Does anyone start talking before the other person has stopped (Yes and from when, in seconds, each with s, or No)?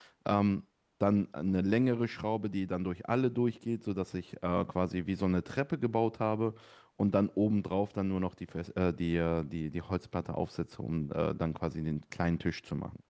No